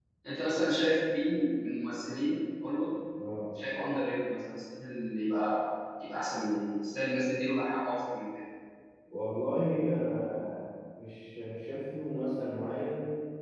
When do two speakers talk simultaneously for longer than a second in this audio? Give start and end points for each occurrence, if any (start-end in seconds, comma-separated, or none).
none